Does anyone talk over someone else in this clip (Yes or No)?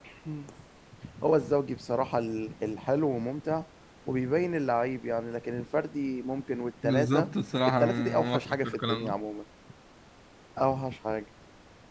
Yes